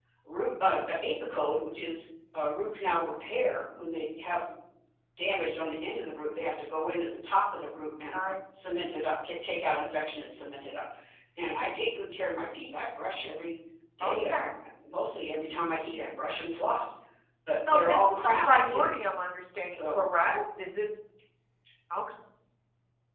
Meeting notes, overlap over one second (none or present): present